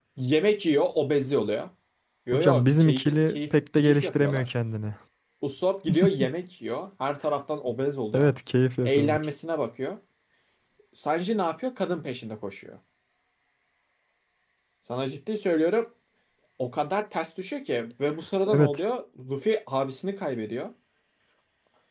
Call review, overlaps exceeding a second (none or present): present